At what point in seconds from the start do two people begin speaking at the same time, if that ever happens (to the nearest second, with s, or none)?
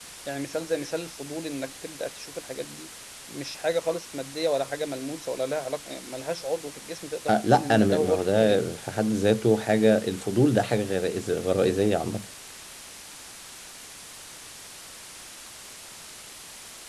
7 s